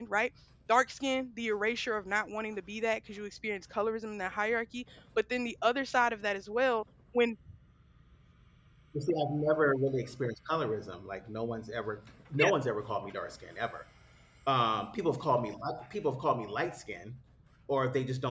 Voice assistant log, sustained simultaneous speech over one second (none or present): none